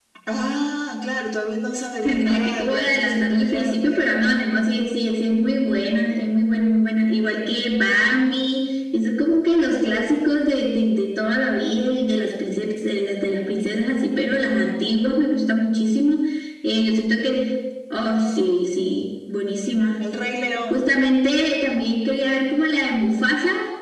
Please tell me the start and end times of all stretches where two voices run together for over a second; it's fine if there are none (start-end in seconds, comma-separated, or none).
2.0-4.1